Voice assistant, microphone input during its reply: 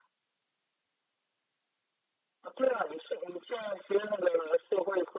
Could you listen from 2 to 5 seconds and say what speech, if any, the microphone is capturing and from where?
echo only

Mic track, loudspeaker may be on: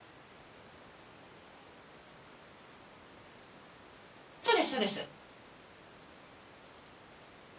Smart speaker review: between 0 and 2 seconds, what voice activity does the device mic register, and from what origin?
neither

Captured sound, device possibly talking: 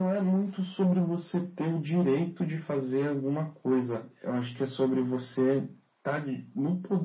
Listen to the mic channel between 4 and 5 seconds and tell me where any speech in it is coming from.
echo only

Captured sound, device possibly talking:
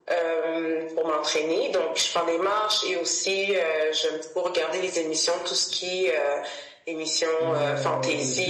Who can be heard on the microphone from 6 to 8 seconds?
both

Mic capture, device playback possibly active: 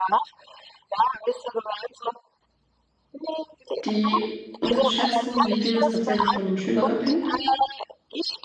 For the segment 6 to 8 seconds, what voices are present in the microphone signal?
both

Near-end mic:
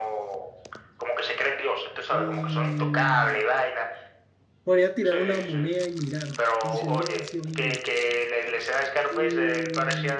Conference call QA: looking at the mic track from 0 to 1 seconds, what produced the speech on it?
echo only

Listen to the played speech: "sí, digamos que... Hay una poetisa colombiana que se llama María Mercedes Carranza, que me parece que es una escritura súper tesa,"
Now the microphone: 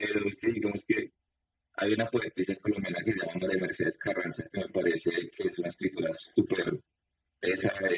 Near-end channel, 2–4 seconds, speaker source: echo only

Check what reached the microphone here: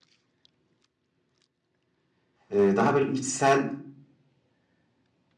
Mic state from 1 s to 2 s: neither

